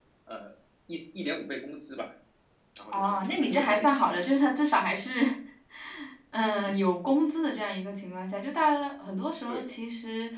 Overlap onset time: 2.9 s

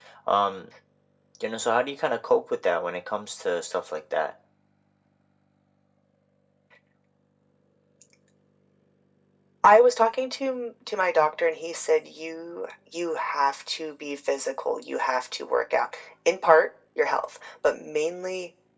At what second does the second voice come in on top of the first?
none

